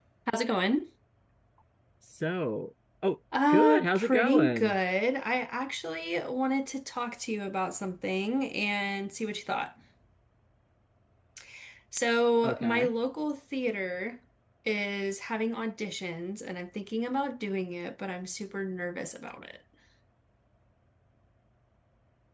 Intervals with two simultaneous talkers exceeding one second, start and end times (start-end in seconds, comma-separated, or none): 3.5-4.8